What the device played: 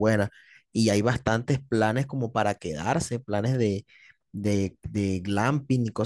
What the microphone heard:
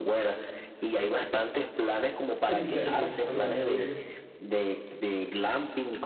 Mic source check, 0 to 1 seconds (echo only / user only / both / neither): echo only